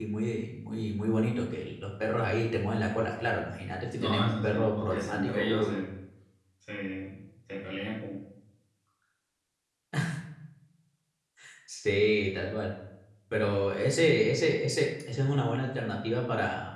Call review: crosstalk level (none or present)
present